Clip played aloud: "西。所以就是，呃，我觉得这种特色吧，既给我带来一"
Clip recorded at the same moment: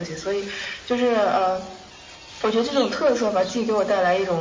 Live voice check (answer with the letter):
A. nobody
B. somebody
A